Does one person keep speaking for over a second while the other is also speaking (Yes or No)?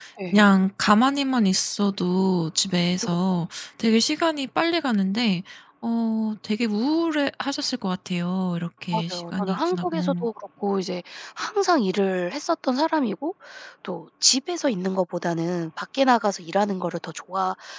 Yes